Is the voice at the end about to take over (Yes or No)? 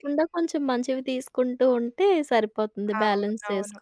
Yes